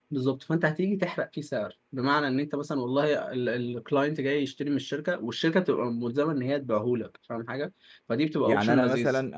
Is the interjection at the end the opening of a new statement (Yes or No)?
Yes